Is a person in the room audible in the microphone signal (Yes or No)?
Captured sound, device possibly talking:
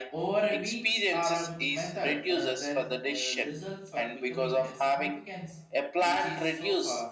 Yes